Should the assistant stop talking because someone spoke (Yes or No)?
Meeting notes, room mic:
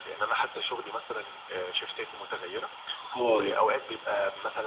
Yes